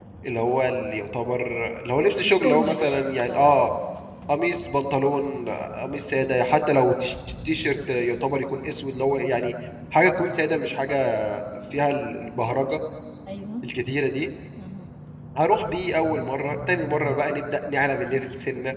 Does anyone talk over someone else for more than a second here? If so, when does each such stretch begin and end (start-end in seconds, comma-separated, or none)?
2.2-3.5